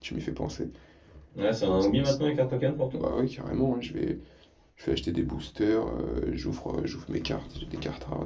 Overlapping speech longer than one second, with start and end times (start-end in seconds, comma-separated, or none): none